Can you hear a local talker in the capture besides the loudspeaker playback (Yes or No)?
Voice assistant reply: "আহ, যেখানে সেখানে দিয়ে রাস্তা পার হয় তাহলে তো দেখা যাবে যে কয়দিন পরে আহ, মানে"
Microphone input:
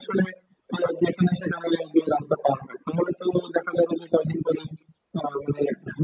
No